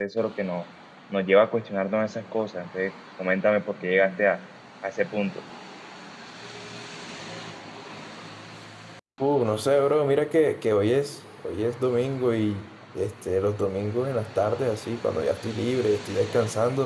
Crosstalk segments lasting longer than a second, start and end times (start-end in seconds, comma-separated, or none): none